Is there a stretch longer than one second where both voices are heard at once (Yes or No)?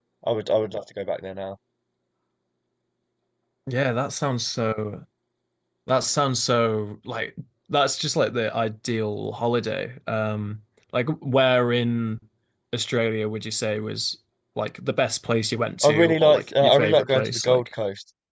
Yes